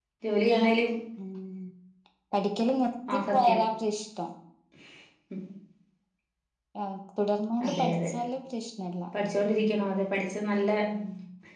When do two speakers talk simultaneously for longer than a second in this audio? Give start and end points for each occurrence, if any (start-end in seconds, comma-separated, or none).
none